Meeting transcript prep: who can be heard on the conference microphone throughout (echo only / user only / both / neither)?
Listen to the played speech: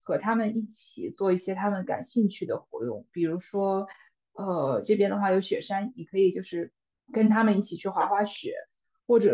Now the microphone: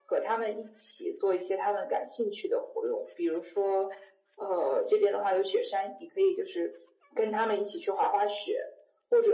echo only